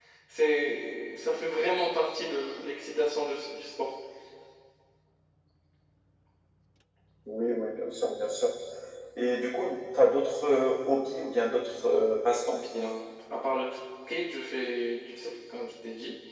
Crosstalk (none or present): none